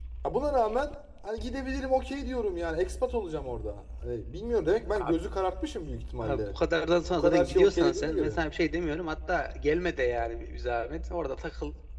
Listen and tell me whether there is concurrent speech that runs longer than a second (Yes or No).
Yes